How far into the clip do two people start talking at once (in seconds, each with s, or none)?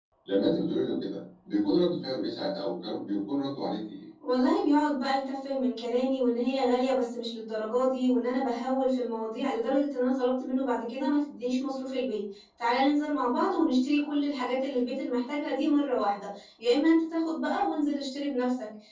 none